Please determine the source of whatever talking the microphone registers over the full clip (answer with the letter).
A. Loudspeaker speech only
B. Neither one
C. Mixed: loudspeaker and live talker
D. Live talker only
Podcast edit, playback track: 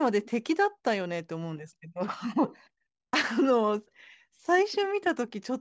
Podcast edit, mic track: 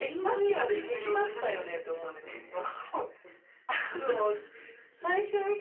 C